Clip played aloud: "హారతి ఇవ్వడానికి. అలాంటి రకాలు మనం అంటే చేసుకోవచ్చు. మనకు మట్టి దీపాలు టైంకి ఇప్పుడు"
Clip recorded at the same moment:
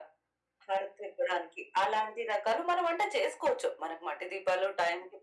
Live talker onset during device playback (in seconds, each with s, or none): none